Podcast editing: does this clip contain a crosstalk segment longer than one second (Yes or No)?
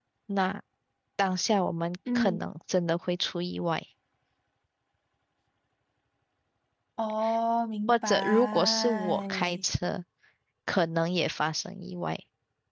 Yes